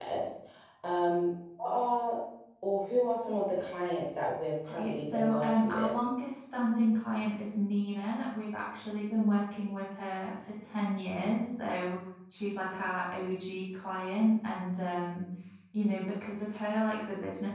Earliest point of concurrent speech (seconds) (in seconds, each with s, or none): 4.7 s